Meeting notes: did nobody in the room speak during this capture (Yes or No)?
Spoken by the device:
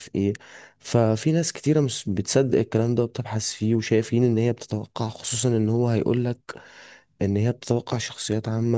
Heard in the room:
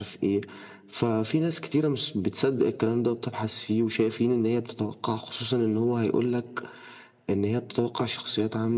Yes